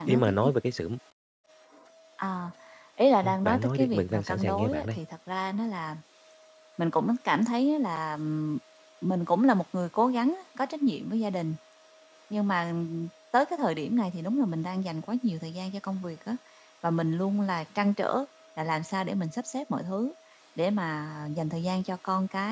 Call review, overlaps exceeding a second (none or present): present